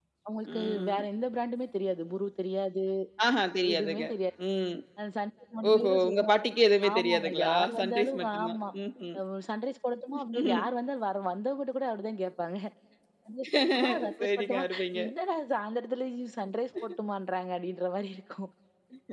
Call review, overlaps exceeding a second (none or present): present